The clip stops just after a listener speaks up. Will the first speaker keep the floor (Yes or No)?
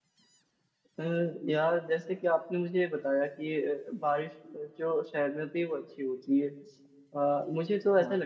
Yes